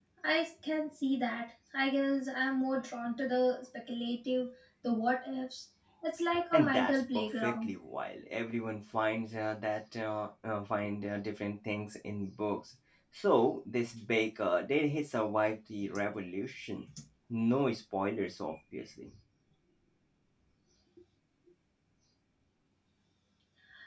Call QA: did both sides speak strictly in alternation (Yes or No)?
No